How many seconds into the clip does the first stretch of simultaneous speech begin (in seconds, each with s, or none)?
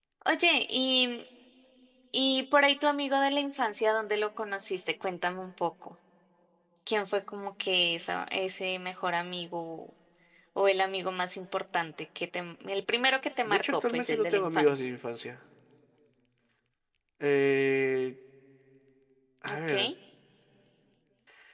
13.4 s